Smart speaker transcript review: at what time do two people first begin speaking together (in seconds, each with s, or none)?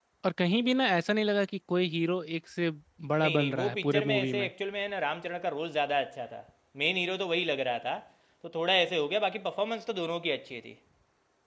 3.2 s